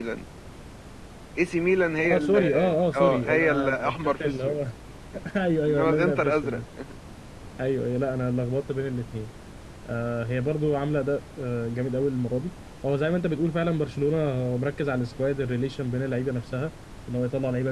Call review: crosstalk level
present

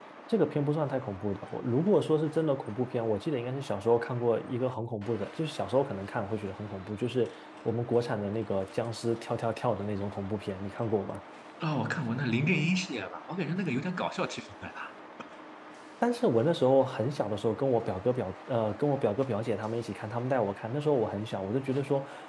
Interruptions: none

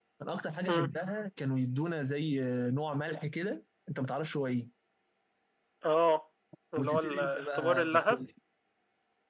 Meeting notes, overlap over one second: present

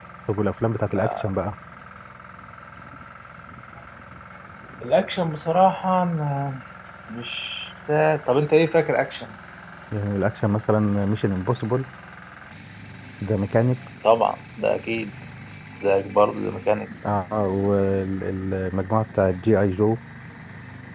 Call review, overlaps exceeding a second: none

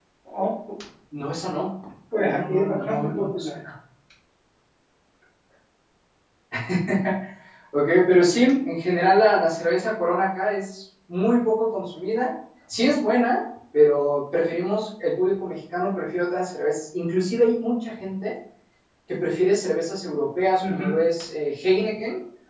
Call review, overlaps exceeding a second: present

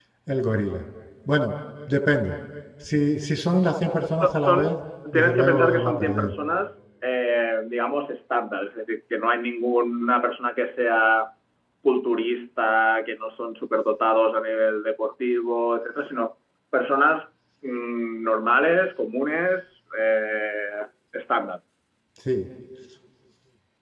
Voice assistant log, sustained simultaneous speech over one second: present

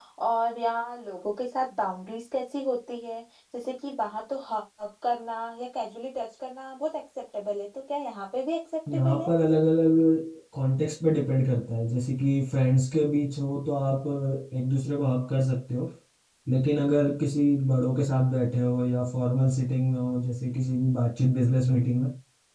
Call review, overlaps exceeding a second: none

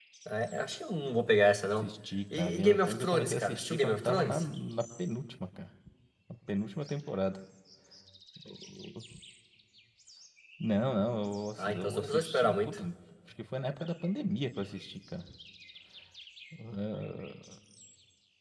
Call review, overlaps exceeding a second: present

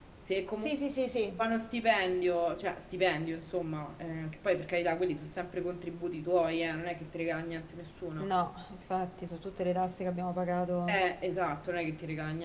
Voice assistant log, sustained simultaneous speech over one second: none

